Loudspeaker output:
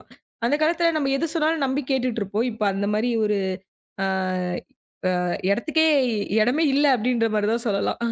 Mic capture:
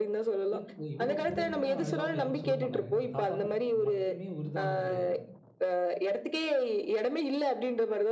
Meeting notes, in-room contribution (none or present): present